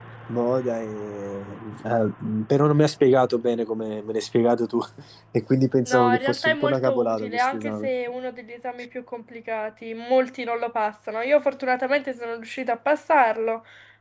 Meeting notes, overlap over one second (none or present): present